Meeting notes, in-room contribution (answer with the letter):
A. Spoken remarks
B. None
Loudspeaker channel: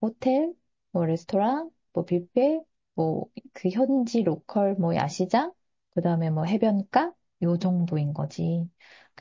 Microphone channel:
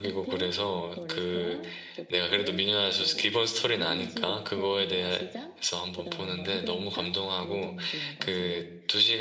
A